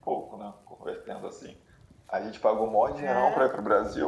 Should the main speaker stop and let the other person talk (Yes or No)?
No